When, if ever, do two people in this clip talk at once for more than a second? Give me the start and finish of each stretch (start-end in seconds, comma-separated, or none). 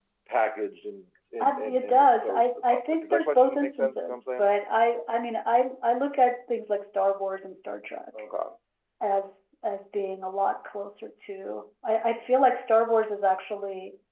1.7-4.5